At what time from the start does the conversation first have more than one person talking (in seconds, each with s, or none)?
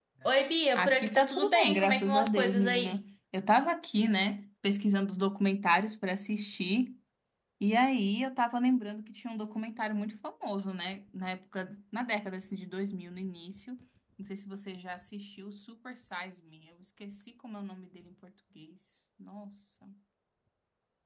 0.8 s